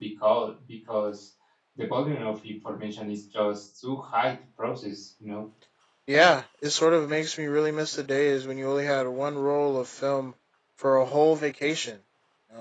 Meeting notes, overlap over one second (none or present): none